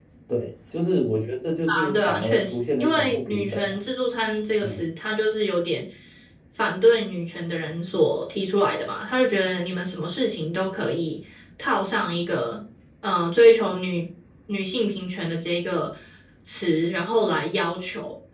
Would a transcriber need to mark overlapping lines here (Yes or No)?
Yes